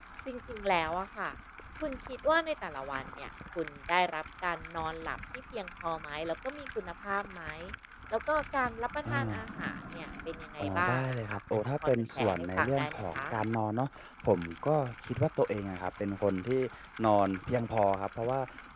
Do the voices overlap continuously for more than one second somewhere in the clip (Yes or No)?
Yes